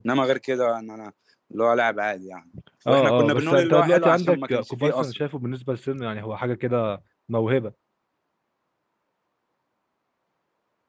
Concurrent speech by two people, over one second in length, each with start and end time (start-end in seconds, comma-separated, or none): 2.9-5.1